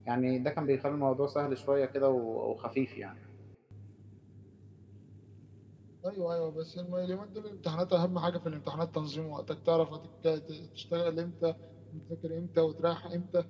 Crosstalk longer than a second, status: none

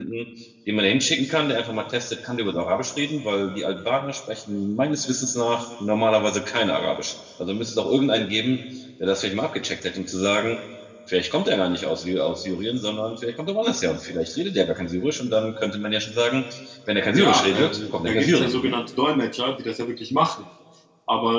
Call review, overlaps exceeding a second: present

